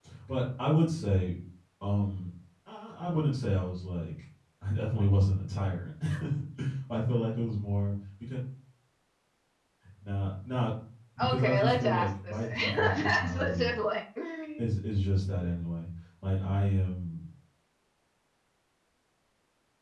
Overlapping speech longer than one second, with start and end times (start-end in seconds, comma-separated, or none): 11.2-13.7